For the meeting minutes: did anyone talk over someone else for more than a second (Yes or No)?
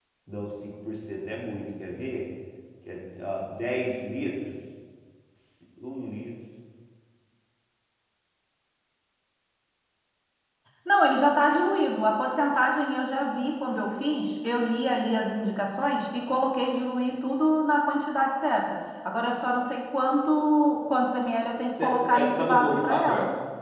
Yes